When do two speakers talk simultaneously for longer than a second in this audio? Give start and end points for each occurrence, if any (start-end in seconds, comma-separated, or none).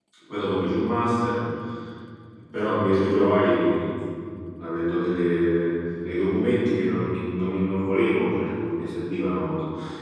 none